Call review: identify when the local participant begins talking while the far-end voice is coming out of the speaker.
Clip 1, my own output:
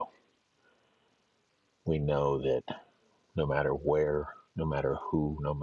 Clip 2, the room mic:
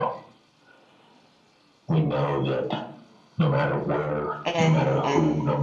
4.5 s

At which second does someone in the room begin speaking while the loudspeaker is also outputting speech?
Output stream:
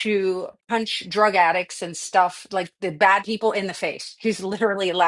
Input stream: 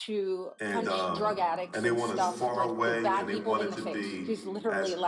0.6 s

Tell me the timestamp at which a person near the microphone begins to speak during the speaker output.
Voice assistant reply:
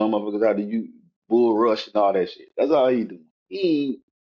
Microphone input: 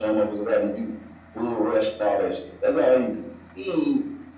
none

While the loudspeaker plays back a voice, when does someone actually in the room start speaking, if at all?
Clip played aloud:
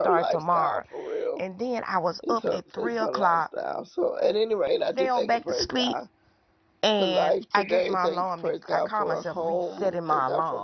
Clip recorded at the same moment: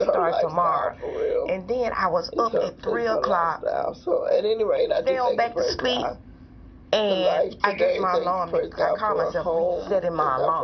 none

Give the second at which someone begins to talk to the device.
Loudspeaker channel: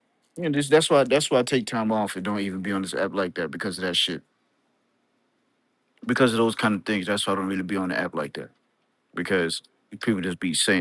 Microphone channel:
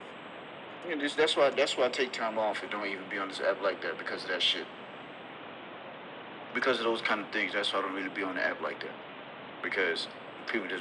none

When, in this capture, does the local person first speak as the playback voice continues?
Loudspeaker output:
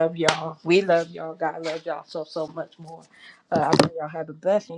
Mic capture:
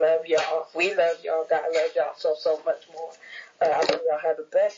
none

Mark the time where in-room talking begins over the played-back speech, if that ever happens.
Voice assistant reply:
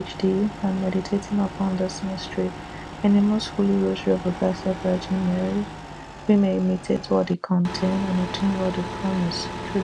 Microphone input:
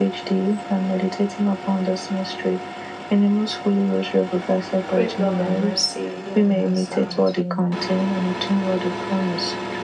4.9 s

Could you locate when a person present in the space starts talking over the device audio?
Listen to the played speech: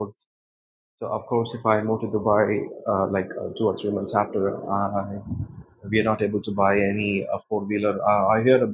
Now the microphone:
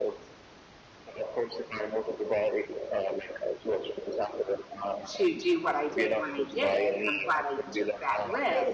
5.0 s

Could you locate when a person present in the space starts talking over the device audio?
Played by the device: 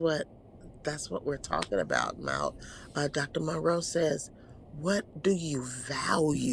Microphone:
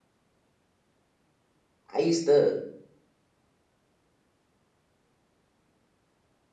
1.9 s

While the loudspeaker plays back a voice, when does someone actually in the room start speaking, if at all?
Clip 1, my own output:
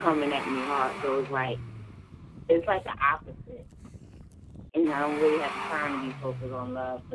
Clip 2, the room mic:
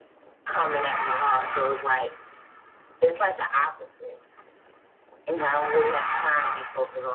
none

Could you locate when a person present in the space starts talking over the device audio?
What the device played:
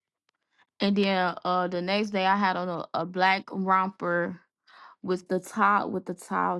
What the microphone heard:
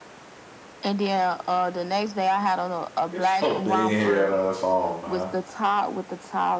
3.1 s

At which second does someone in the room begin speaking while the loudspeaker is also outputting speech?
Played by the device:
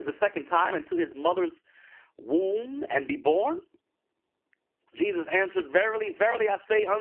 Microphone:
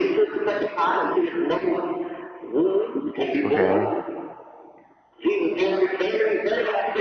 3.4 s

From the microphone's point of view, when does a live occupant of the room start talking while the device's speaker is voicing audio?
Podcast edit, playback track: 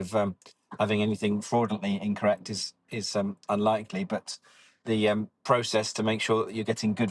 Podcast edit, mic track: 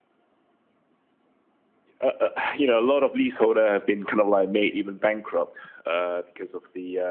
2.0 s

